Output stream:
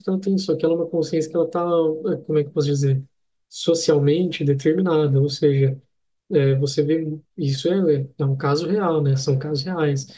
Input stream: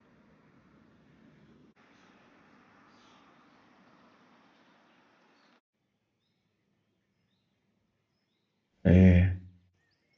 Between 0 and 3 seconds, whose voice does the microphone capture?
neither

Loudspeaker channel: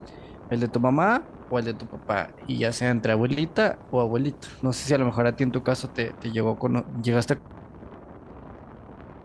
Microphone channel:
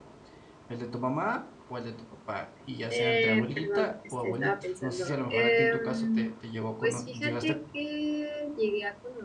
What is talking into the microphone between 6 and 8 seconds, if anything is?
both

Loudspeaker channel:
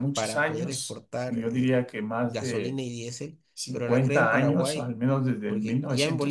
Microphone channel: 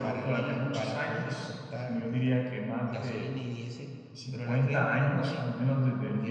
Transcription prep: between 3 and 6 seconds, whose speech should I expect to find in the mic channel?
echo only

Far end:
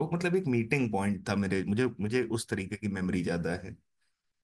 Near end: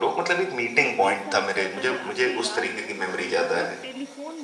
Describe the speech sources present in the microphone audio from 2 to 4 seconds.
both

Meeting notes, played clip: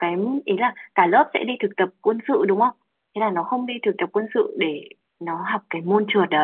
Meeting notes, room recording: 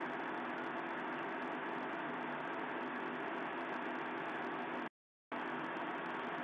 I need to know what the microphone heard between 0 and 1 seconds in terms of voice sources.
neither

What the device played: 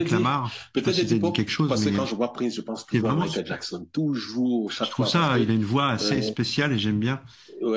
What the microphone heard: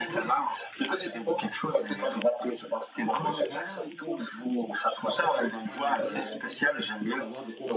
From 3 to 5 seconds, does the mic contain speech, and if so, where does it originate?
both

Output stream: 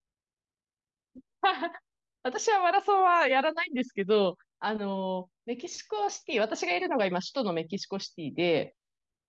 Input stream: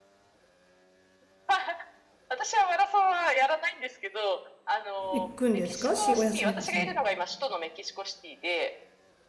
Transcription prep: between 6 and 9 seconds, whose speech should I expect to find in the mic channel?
both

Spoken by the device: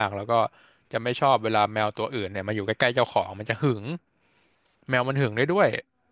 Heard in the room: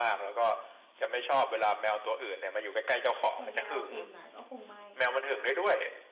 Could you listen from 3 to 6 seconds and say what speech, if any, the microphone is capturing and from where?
both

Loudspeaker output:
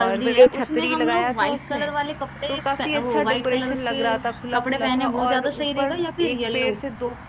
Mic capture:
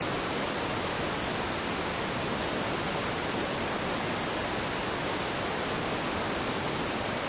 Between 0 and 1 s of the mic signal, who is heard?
neither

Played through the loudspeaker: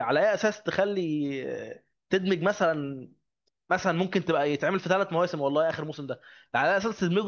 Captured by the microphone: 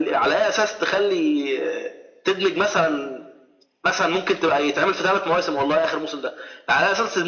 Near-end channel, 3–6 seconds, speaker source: echo only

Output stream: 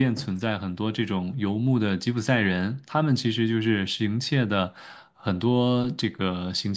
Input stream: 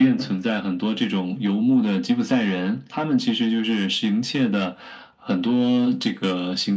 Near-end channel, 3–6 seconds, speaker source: echo only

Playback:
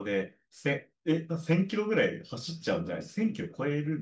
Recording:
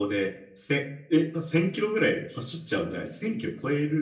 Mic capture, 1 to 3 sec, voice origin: echo only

